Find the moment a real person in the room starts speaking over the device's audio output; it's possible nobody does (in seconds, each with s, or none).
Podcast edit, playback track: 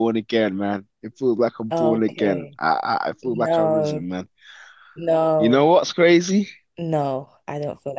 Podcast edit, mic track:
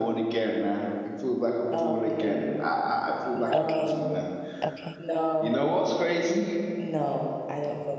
3.5 s